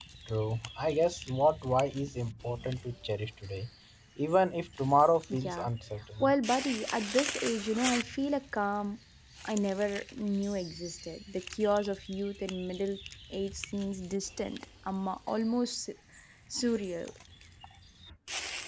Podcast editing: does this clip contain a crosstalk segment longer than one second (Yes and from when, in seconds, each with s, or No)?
No